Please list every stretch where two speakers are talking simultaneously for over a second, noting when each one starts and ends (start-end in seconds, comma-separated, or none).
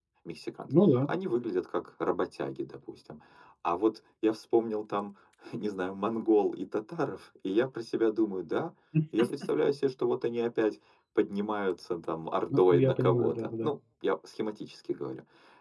12.5-13.7